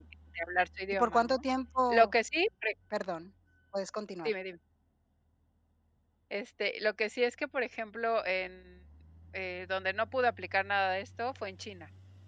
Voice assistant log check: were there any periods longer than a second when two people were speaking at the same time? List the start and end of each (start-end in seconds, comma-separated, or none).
none